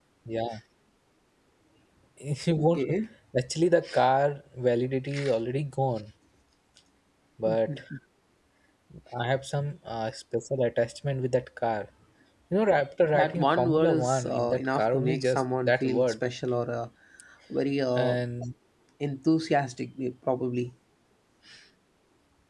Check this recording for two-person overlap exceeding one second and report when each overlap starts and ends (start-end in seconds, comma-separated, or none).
13.1-16.1